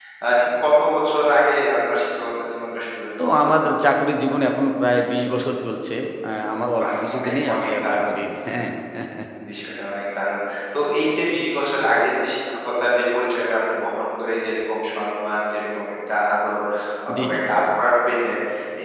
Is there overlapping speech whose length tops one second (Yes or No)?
Yes